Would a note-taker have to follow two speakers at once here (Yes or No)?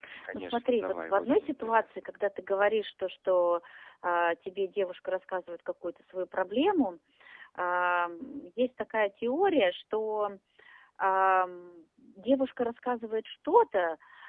Yes